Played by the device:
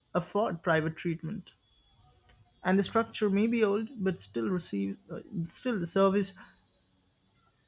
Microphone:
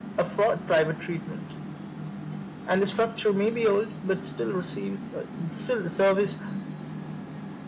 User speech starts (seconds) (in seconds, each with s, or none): none